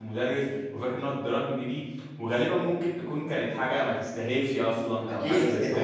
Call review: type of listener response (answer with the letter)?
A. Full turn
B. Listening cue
A